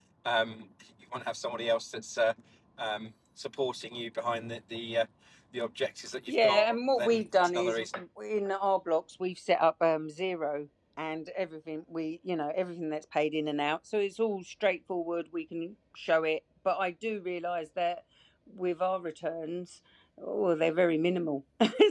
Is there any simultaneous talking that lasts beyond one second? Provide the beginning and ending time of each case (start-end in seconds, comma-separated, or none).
6.4-7.8